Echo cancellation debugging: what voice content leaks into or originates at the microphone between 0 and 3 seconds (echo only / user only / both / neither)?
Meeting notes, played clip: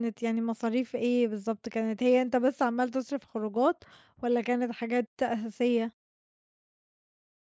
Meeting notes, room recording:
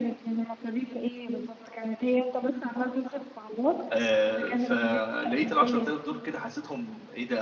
echo only